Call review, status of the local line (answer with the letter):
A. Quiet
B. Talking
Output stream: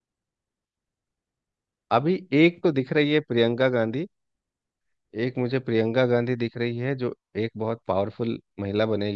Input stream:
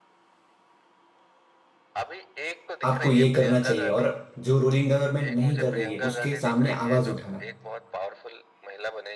B